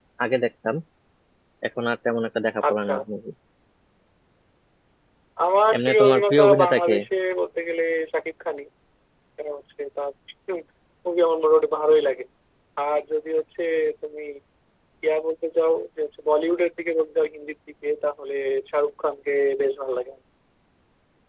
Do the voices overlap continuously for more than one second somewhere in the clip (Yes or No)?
Yes